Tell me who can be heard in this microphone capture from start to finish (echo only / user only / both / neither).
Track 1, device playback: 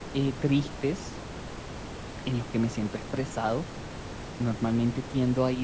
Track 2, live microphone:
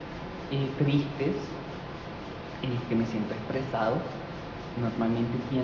echo only